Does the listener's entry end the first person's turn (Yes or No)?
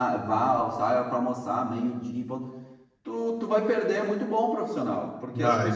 No